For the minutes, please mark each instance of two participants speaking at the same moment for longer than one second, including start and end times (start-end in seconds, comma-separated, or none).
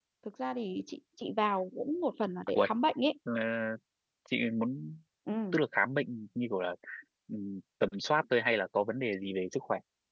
none